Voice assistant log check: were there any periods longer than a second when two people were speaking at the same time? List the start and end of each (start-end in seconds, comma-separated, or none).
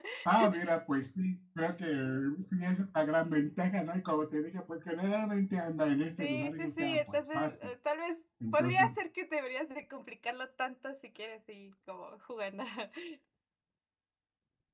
6.2-7.5